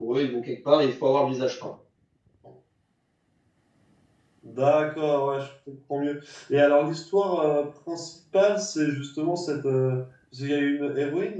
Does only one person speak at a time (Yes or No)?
Yes